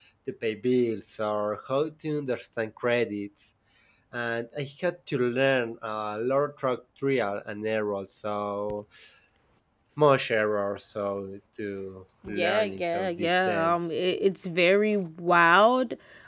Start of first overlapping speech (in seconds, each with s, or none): 12.2 s